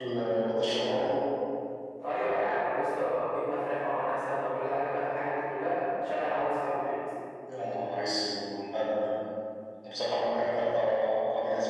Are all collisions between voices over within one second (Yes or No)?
Yes